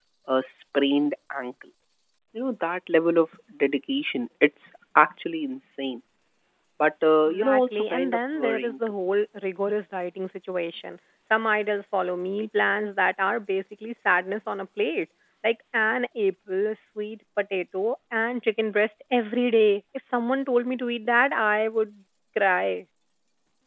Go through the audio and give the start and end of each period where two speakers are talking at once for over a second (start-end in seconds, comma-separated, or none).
7.3-8.7